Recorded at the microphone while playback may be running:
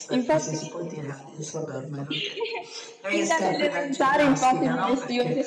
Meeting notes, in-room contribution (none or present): present